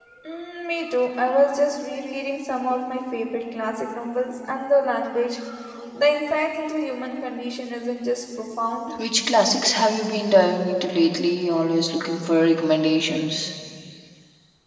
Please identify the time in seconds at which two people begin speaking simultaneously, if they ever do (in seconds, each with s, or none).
none